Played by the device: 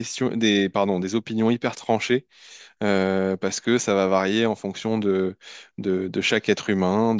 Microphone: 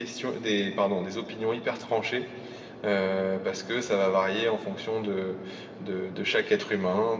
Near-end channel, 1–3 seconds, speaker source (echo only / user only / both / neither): echo only